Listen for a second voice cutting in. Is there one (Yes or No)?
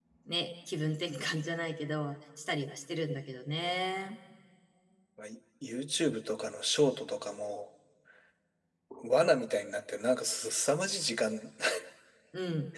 No